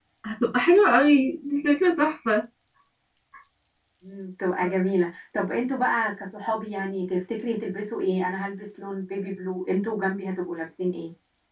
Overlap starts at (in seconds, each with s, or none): none